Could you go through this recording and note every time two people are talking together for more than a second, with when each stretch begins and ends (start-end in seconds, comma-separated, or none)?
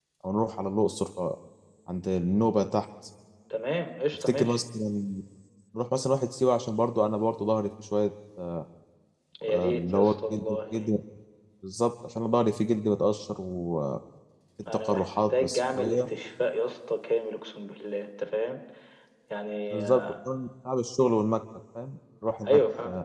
9.5-10.9, 14.7-16.0